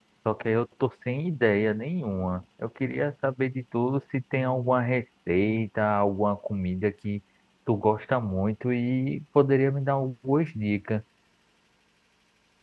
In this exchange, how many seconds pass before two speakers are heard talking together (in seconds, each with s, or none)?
none